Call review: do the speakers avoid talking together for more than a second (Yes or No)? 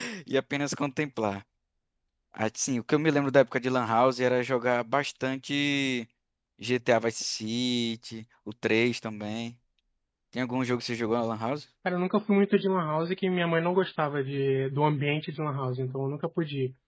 Yes